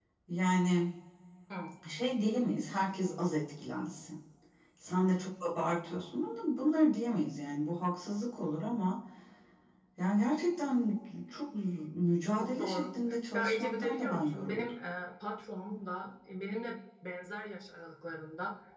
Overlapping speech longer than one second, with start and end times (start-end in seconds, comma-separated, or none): 13.3-14.7